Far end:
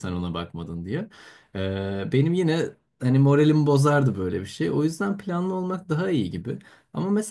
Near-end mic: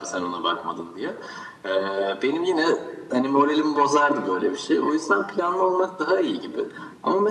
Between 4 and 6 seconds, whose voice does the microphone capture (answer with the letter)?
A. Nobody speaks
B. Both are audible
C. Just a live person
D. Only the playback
D